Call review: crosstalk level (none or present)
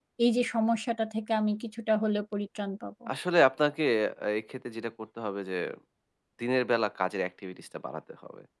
none